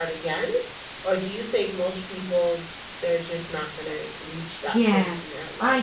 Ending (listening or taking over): taking over